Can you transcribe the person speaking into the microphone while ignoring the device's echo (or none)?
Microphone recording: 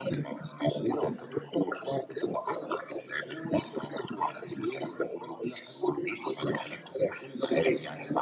none